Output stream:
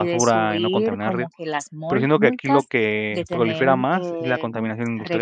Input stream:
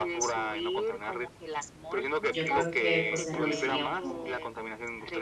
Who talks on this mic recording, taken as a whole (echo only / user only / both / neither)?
both